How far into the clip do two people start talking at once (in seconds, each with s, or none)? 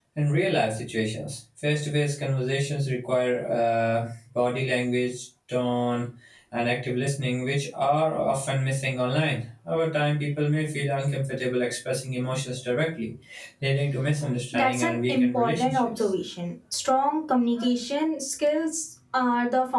14.5 s